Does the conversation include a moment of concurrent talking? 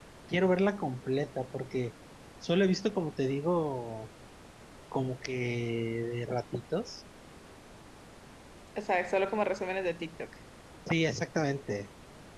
No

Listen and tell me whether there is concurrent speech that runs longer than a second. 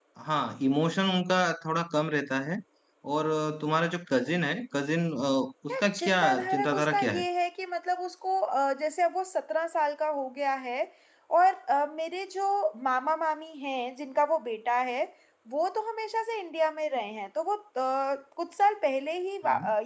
Yes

